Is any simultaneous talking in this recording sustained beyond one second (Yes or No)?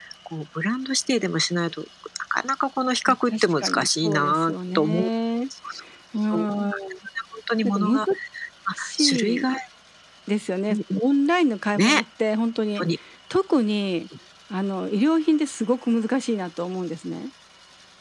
Yes